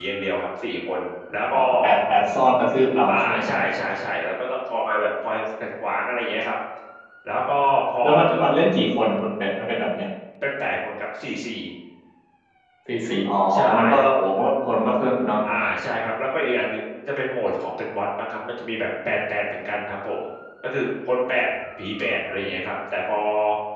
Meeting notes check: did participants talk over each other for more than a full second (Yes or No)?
No